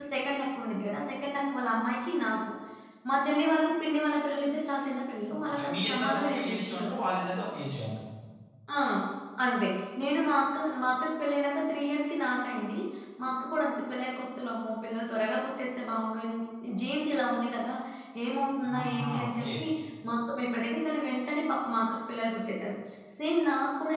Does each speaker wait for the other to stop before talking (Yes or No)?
No